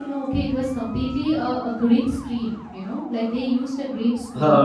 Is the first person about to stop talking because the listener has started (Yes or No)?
No